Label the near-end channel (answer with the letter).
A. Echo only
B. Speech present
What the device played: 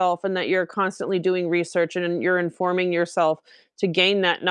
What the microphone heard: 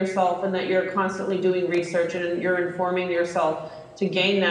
A